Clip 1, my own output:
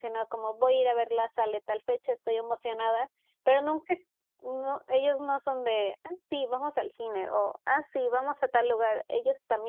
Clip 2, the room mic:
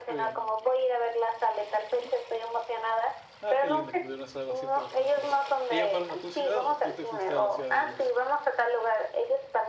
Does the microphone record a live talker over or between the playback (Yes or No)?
Yes